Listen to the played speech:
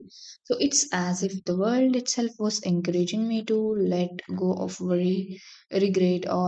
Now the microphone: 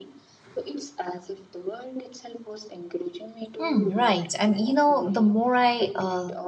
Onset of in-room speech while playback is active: 3.6 s

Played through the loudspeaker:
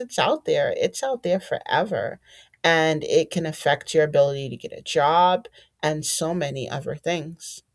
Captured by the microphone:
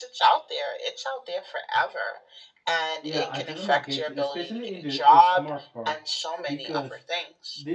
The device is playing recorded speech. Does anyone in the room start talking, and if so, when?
3.0 s

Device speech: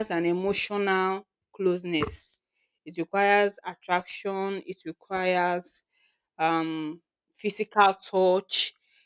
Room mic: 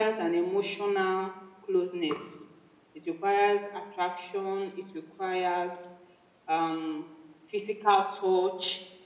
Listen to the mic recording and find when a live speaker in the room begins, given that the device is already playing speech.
none

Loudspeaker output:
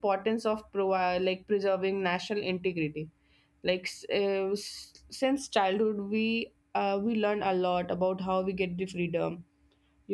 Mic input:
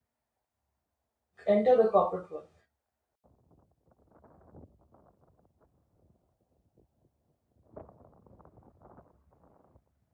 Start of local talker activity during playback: 1.5 s

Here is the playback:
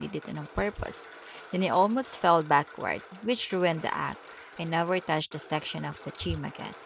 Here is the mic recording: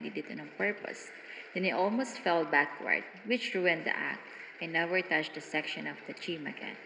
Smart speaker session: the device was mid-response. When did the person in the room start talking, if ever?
none

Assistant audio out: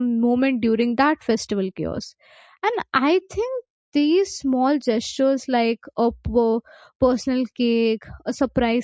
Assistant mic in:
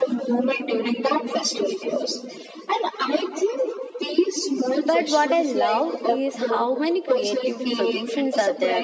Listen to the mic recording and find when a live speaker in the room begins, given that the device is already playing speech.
4.8 s

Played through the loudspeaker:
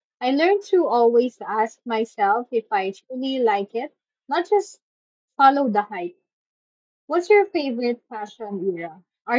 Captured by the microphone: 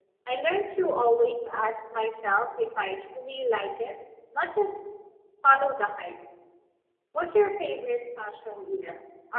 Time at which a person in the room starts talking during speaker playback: none

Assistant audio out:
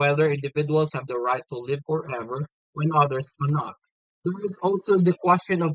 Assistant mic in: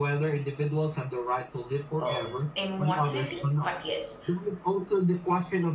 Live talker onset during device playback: 2.0 s

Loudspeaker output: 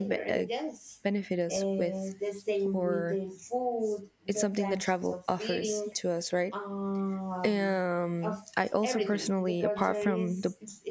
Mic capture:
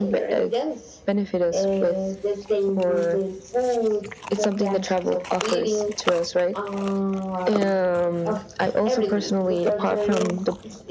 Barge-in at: none

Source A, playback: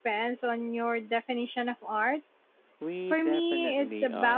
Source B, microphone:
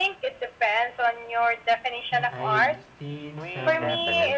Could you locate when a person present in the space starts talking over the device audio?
2.1 s

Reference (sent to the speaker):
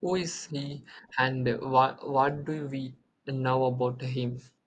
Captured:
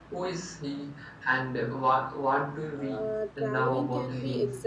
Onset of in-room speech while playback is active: 2.8 s

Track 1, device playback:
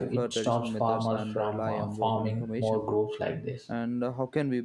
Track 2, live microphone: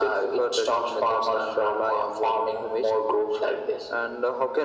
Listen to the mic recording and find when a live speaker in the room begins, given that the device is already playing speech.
none

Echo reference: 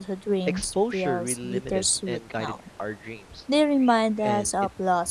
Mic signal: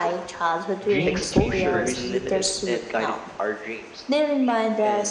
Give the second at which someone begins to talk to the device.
0.8 s

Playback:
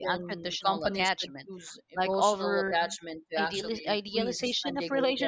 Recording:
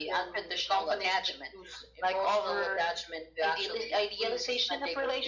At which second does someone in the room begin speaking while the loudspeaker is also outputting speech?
none

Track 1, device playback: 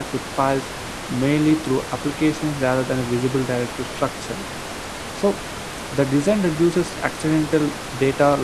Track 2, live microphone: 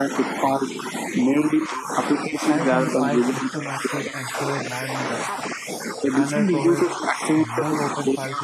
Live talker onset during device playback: 2.3 s

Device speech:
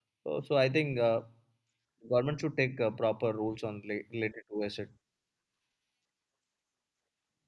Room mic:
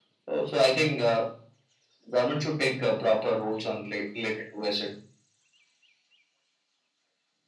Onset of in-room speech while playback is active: none

